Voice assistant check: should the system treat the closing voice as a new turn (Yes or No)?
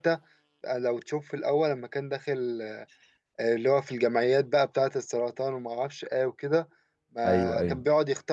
No